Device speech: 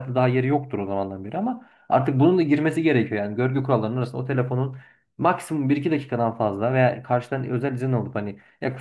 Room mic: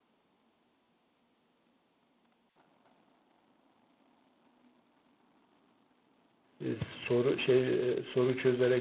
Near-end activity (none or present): present